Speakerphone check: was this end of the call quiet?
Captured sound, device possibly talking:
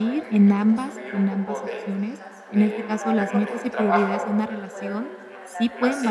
No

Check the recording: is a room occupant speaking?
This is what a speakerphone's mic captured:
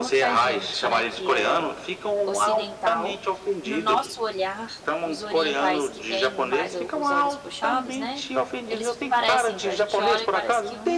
Yes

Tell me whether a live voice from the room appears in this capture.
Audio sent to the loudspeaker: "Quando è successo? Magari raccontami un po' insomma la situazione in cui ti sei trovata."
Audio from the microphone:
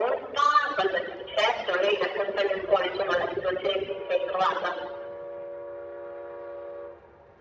No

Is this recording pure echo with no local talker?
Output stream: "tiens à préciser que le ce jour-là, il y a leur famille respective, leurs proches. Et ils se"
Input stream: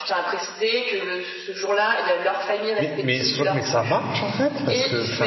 No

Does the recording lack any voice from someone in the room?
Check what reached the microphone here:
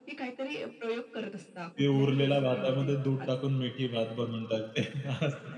No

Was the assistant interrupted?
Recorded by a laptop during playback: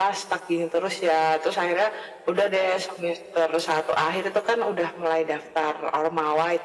No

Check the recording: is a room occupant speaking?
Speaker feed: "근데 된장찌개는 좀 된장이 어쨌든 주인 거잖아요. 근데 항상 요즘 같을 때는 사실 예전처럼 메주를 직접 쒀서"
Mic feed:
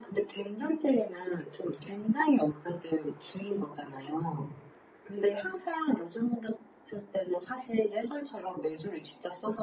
No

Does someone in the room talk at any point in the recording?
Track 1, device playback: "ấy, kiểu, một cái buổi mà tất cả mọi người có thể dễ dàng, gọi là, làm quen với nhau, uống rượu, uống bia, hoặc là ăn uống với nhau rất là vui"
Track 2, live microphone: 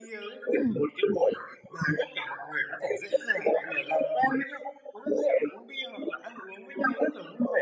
Yes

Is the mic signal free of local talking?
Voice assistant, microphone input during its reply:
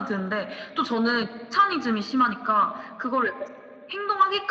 Yes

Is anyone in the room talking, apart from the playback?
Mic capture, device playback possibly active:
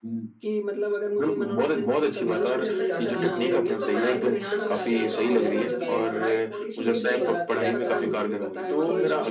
Yes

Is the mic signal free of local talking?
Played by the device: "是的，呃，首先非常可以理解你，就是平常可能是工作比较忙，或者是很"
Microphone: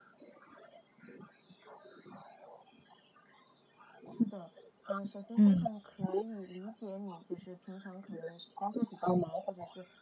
No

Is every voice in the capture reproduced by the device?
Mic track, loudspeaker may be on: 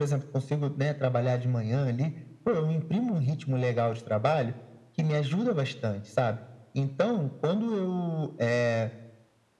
Yes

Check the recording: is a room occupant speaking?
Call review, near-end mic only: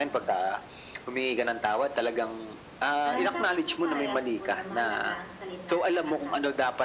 Yes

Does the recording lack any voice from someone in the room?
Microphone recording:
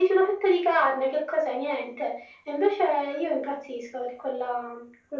Yes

